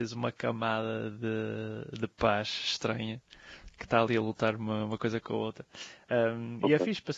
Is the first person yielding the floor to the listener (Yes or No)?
No